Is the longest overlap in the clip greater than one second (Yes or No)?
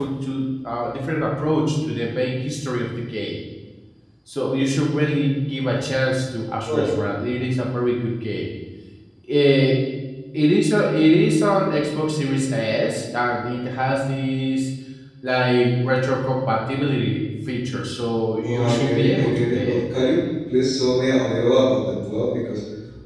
Yes